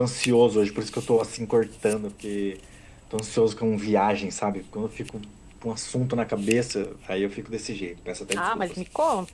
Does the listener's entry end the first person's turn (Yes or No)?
Yes